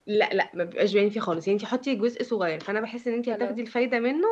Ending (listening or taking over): listening